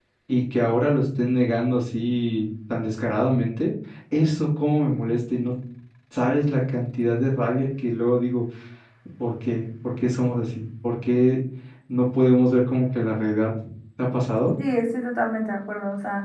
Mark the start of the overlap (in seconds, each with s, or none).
none